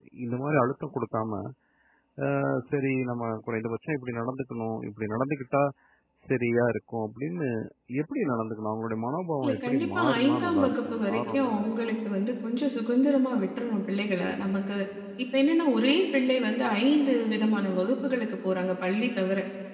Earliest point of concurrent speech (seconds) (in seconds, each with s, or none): 9.4 s